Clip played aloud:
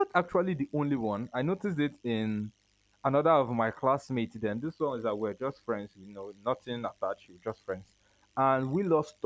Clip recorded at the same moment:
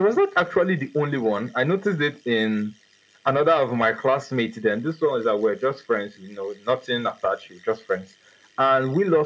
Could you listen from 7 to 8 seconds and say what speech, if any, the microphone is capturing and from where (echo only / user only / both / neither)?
echo only